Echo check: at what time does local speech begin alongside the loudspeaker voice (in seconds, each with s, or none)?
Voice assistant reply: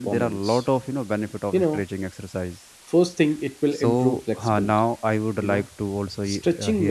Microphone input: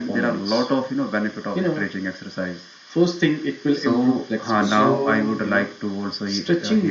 4.6 s